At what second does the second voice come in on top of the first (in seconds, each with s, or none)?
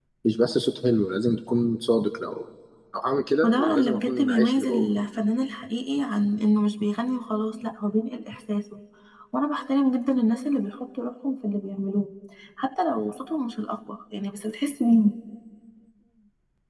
3.4 s